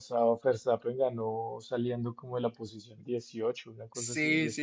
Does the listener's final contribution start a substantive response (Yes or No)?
Yes